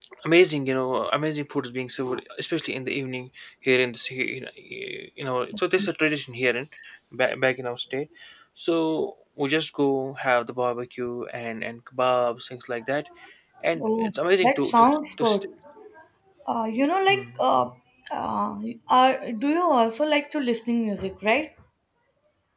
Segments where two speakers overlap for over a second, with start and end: 13.8-15.4

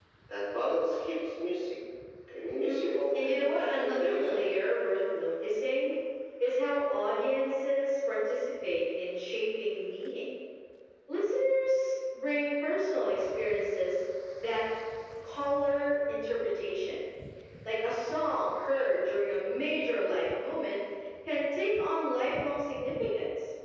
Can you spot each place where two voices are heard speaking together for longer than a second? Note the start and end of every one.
2.6-4.5

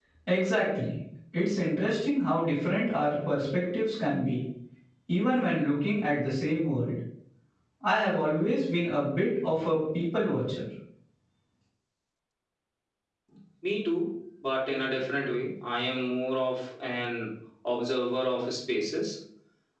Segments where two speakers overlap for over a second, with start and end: none

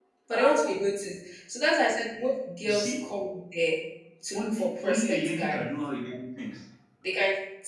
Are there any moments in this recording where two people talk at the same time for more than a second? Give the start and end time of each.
4.3-5.7

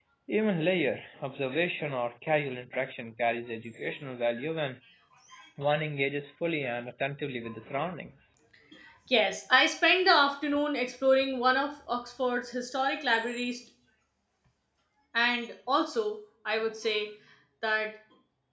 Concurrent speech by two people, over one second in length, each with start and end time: none

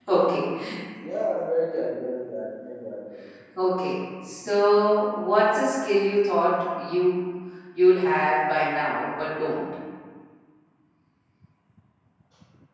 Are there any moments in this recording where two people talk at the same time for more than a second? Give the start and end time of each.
none

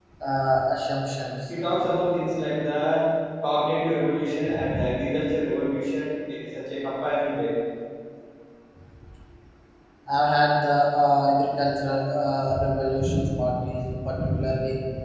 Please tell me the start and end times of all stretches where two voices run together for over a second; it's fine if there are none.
none

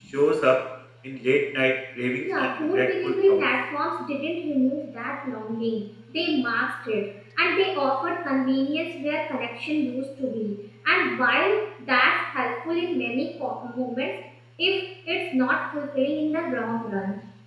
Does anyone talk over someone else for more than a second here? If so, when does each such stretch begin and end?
2.2-3.4

